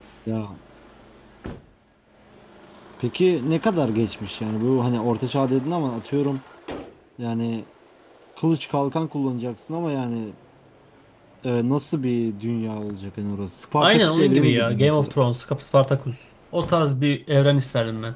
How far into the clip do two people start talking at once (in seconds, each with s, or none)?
13.8 s